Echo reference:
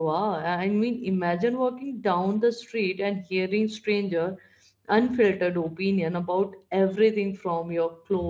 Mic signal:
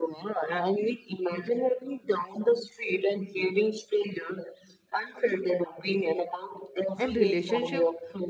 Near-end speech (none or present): present